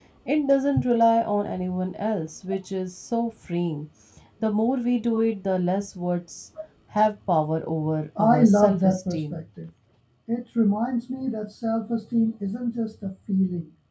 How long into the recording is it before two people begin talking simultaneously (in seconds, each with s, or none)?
8.2 s